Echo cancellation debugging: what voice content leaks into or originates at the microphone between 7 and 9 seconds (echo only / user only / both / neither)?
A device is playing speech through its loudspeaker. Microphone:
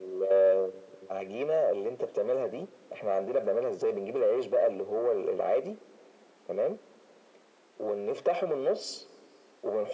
echo only